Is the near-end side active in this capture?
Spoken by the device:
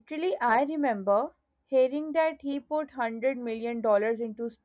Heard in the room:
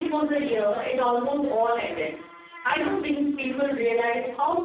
Yes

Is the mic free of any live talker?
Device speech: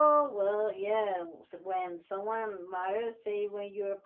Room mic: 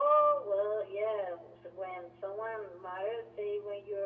Yes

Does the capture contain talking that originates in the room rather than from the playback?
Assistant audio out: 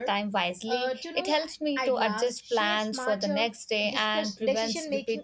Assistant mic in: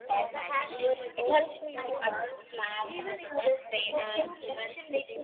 Yes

